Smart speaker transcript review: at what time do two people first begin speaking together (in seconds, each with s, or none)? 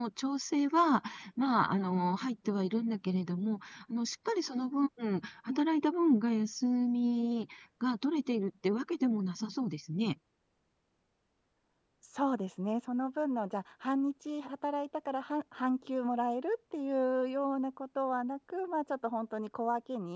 none